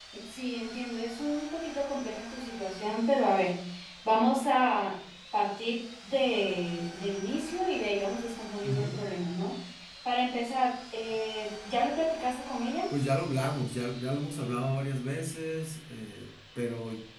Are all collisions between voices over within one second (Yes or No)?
Yes